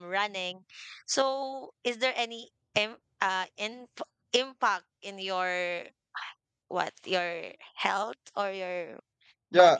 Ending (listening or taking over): taking over